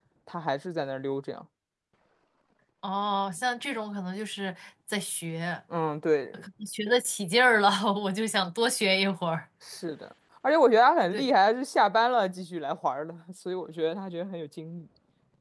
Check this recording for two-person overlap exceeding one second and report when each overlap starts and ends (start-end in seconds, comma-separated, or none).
none